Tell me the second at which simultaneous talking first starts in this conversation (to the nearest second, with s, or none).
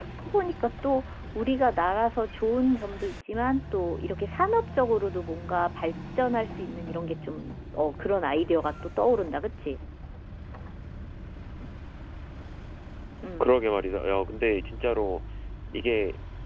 none